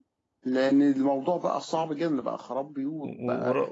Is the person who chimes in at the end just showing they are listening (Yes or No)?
No